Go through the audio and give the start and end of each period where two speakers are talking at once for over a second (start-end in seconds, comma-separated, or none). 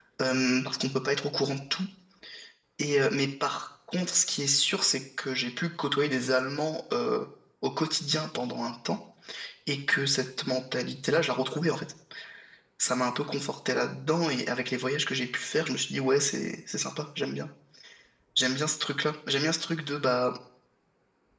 none